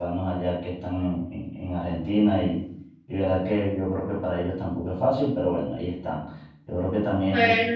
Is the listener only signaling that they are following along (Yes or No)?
No